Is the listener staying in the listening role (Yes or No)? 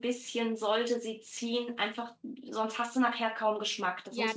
No